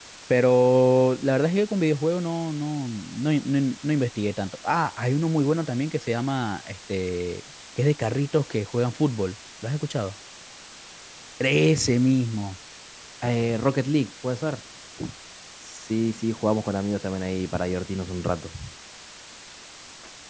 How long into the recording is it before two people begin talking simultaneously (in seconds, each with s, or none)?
none